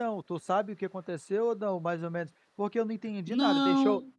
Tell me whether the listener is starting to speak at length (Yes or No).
No